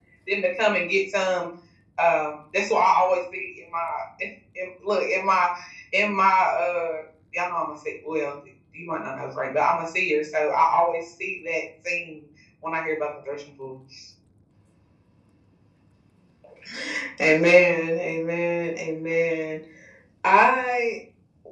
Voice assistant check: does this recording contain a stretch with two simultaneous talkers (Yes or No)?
No